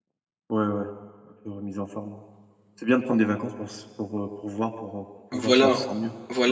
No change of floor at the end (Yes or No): No